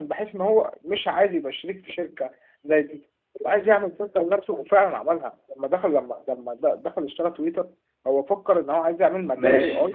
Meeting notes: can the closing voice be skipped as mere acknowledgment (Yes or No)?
No